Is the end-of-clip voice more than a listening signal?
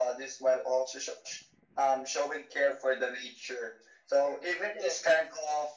No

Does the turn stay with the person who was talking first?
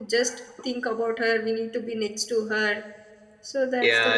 No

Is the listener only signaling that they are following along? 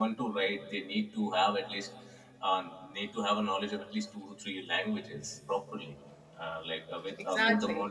Yes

